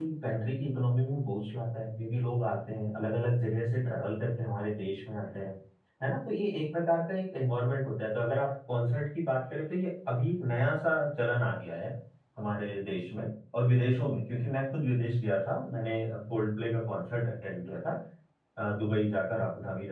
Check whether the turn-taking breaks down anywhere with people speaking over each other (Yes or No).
No